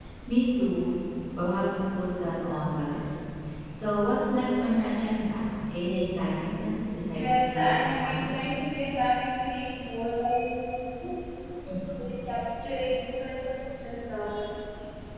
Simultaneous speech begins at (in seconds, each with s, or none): 7.1 s